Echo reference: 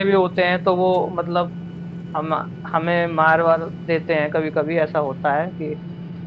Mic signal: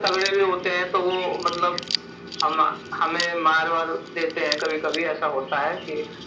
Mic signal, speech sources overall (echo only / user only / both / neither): echo only